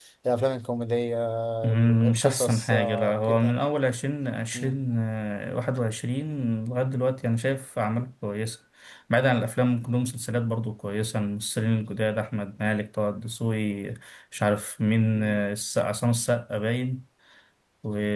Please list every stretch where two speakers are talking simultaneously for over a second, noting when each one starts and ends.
1.7-3.6

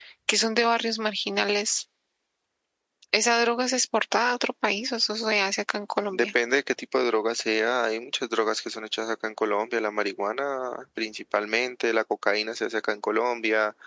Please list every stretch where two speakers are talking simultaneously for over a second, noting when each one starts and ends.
none

